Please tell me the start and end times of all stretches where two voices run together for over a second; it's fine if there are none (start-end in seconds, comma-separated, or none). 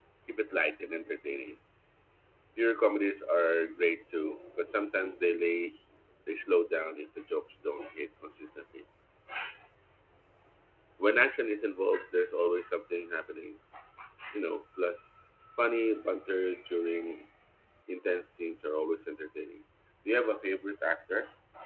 none